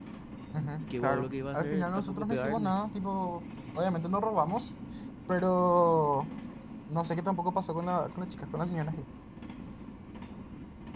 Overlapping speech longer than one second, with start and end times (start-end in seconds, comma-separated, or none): 1.0-2.7